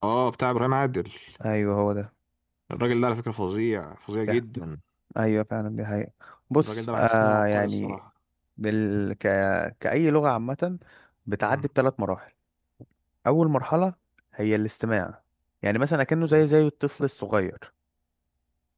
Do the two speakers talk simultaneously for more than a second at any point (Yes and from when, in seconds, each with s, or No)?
Yes, from 6.6 s